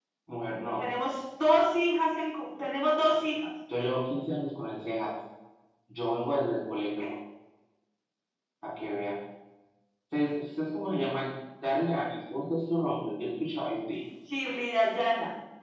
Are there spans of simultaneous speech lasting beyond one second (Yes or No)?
No